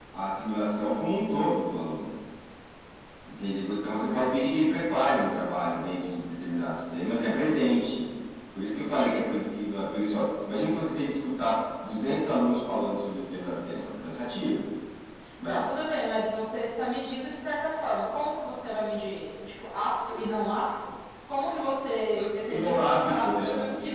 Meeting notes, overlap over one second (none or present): present